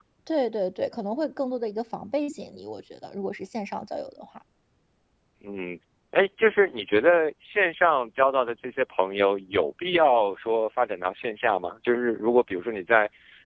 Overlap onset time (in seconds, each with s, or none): none